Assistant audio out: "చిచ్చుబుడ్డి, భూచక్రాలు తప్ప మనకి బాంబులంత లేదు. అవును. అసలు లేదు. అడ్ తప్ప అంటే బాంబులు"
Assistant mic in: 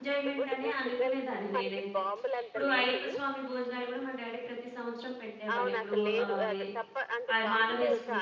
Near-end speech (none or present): present